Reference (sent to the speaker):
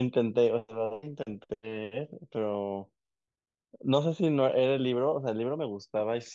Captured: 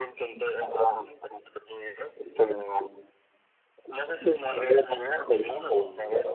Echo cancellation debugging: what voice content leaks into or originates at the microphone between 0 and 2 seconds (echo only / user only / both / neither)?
echo only